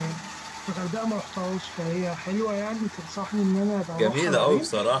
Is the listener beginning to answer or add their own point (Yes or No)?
Yes